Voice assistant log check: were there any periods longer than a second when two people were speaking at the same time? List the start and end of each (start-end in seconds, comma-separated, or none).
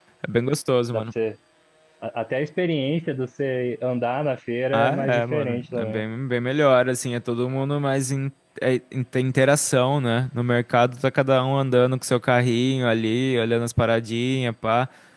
4.7-6.0